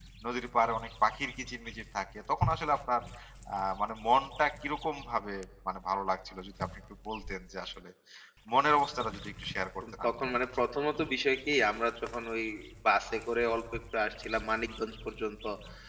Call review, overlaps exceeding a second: none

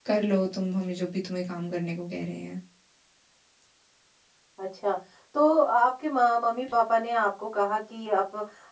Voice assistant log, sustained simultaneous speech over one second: none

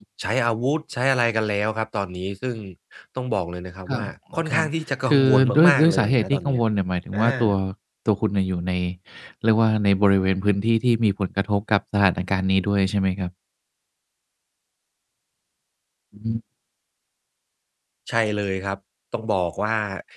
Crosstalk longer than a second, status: present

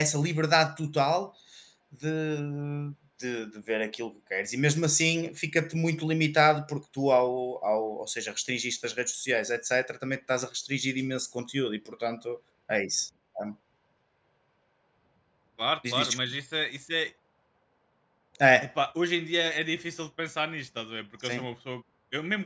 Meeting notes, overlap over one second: none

